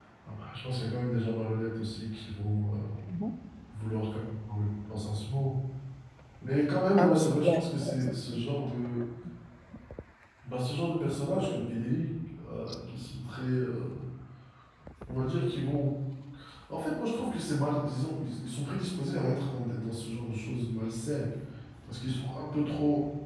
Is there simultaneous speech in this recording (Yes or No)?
Yes